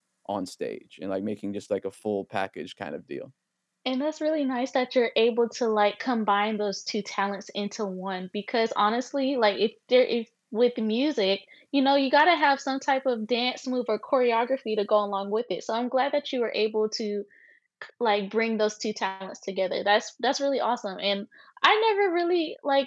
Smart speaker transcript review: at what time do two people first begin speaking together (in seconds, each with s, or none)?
none